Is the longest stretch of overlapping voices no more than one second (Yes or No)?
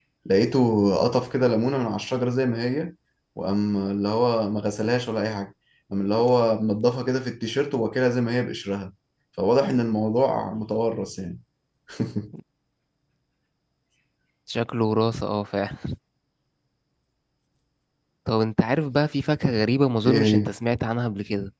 Yes